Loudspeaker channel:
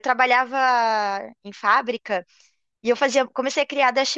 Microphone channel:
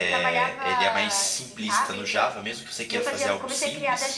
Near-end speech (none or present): present